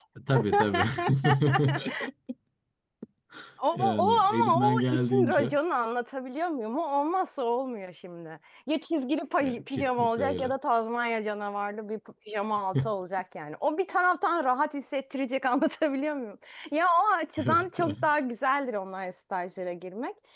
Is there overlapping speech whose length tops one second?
Yes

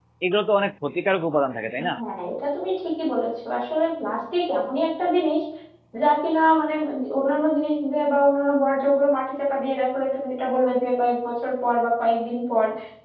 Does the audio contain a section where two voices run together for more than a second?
No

